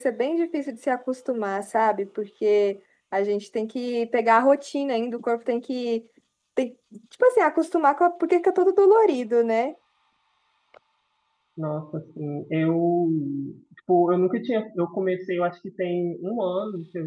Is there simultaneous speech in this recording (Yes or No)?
No